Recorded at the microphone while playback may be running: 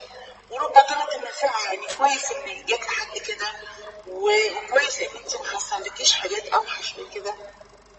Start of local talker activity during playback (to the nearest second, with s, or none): none